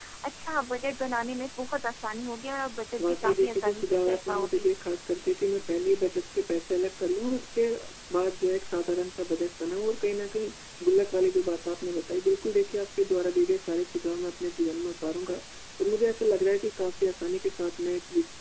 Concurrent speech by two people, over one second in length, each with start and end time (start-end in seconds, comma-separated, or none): 3.0-4.7